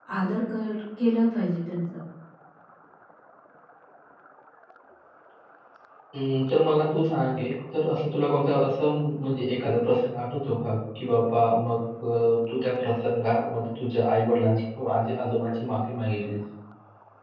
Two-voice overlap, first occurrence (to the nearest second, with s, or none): none